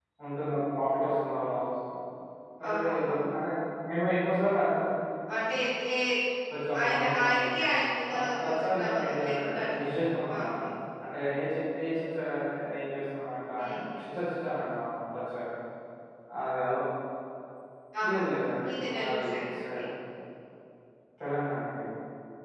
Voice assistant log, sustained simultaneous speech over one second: present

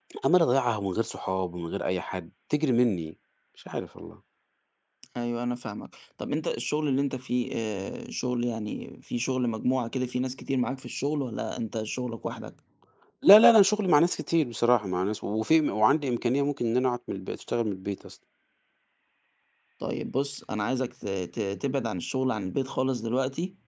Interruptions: none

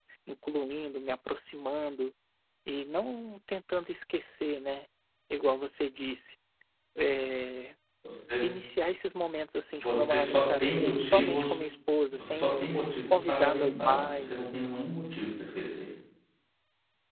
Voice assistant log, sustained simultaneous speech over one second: present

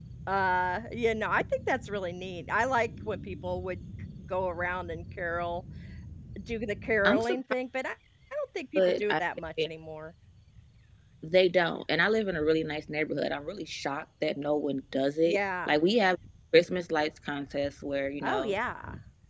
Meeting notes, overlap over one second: none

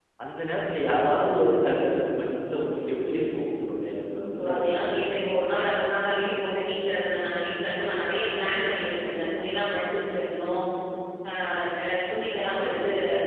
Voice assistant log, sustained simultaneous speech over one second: none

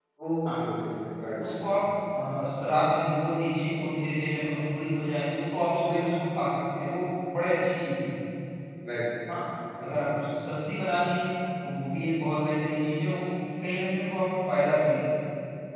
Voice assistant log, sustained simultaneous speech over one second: none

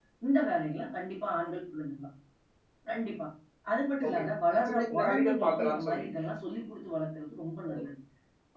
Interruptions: present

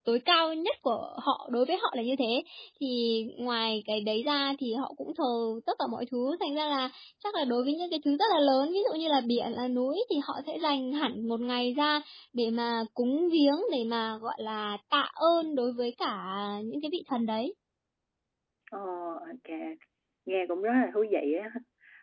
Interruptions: none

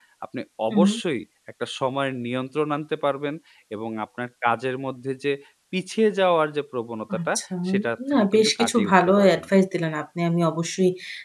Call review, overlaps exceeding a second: present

